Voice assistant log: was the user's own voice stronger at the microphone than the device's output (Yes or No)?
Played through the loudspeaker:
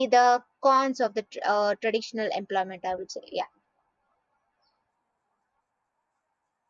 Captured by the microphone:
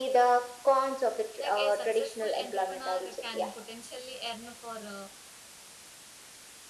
No